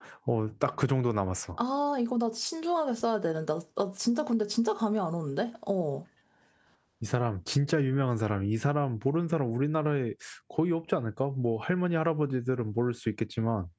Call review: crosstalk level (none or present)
none